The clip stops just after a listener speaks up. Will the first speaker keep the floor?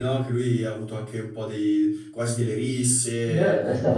No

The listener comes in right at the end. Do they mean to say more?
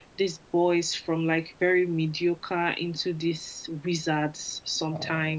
Yes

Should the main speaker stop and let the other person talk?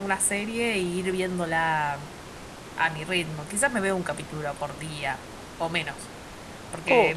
No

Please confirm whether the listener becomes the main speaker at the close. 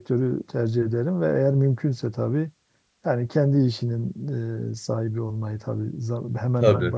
No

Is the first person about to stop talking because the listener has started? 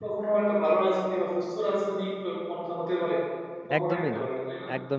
Yes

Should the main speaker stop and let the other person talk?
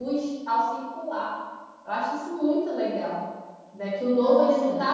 No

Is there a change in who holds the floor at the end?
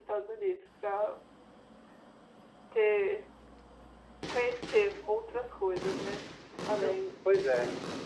Yes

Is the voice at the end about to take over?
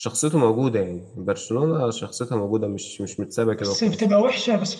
Yes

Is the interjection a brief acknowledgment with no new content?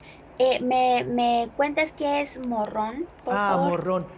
No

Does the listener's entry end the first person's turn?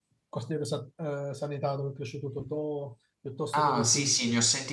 Yes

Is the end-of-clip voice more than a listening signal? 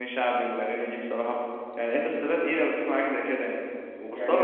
Yes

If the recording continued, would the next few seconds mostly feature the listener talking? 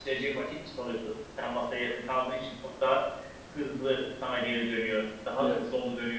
No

